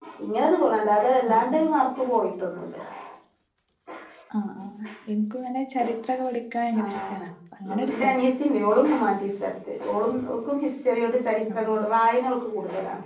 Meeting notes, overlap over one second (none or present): none